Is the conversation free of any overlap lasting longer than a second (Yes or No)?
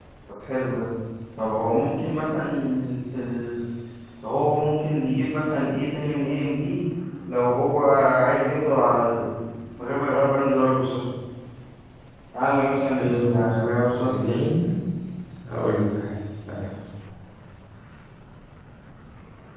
No